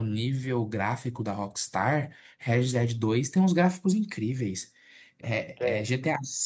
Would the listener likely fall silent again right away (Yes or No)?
Yes